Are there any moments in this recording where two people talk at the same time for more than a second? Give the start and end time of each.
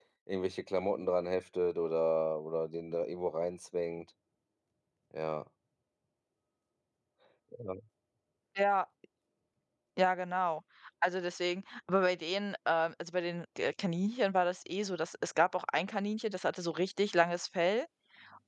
none

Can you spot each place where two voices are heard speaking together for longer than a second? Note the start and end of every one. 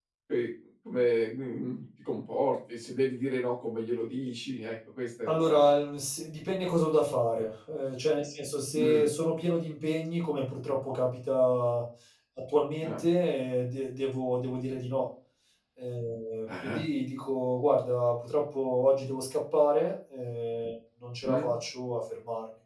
none

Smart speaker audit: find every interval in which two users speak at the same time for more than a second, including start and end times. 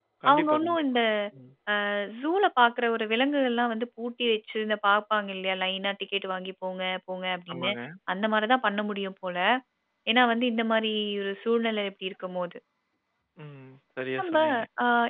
none

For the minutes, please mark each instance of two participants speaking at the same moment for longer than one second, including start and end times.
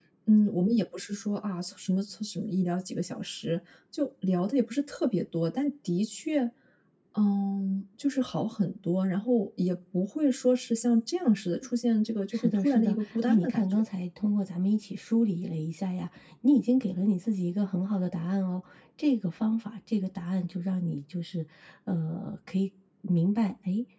12.3-13.8

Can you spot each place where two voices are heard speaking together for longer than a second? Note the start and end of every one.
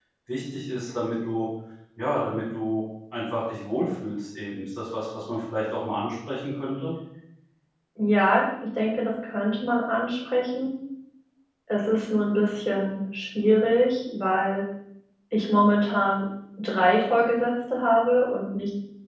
none

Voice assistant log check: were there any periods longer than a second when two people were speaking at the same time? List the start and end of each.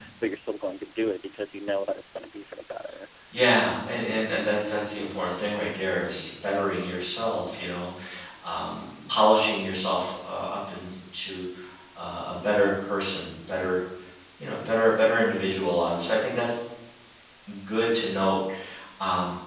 none

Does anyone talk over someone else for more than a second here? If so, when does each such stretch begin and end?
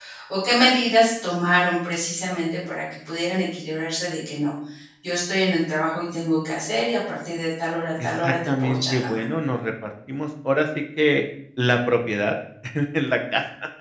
8.0-9.2

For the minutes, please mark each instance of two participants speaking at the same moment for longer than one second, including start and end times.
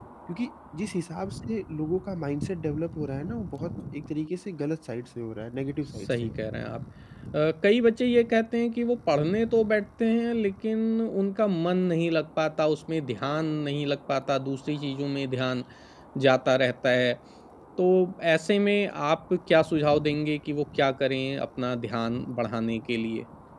none

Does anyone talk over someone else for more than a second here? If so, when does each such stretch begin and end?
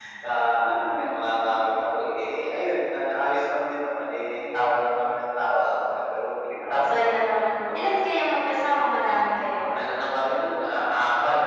none

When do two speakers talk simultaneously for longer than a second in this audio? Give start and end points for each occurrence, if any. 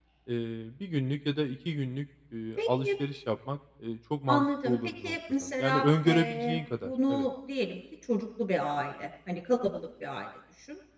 4.3-7.3

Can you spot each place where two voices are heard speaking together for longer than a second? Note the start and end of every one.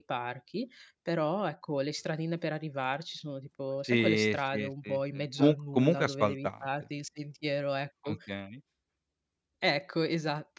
3.8-6.7

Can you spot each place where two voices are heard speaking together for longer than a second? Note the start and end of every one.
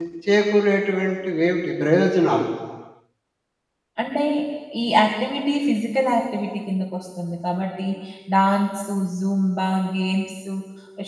none

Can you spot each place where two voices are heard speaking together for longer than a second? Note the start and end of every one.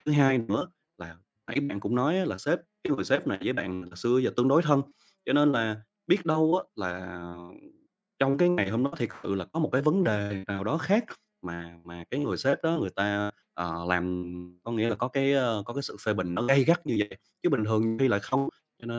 none

